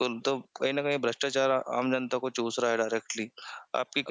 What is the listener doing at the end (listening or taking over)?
taking over